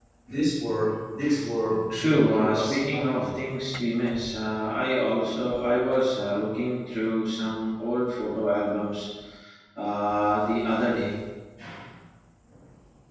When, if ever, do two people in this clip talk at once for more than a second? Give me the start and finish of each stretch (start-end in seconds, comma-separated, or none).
1.9-3.3